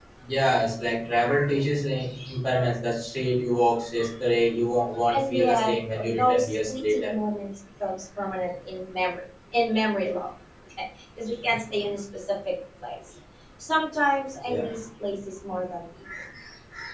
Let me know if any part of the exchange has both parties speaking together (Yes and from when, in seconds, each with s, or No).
Yes, from 5.1 s